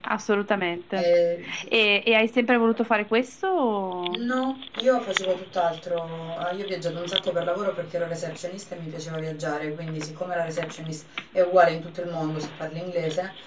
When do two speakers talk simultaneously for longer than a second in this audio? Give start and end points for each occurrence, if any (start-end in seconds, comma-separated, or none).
none